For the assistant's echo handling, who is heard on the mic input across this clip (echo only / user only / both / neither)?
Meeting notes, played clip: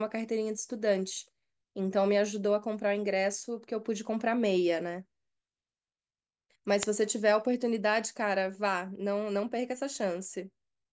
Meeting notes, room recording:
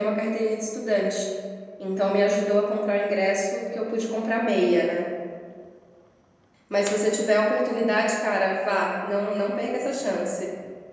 echo only